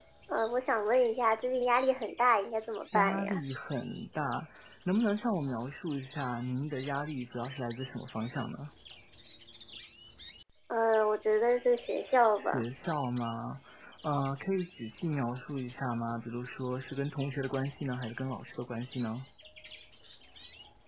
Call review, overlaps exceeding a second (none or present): none